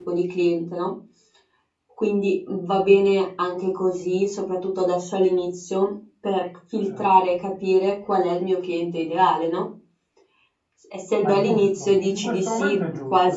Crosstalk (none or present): present